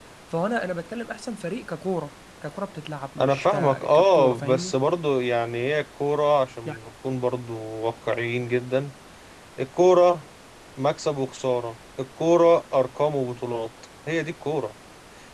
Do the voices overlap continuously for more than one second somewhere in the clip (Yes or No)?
Yes